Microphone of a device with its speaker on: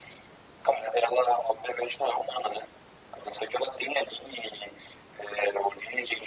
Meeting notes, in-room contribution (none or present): none